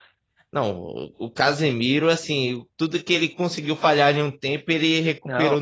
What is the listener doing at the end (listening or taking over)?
taking over